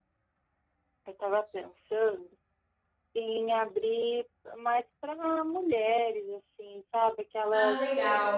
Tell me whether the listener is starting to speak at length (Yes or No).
No